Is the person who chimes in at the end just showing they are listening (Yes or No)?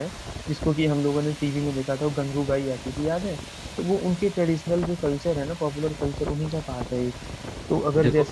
Yes